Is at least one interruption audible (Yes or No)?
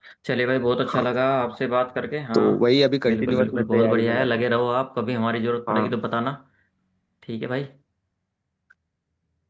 Yes